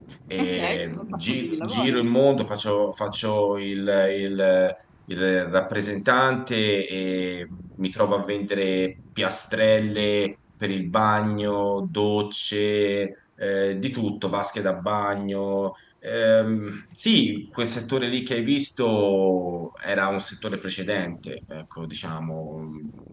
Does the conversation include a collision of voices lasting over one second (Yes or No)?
Yes